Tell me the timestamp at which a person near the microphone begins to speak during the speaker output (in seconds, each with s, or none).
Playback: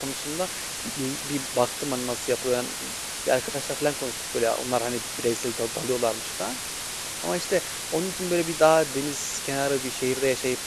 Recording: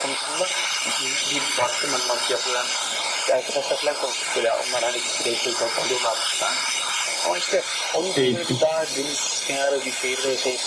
8.1 s